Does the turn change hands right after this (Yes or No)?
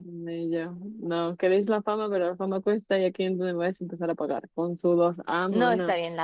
Yes